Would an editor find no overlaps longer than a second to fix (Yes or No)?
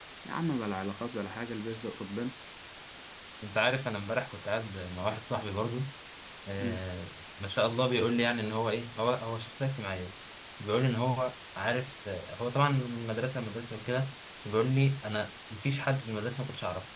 Yes